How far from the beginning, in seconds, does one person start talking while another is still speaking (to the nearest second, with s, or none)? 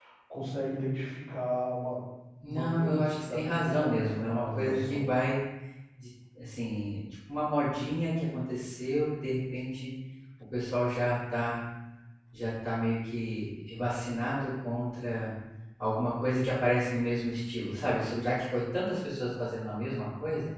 2 s